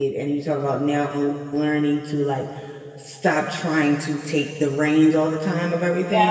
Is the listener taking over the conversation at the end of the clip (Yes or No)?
No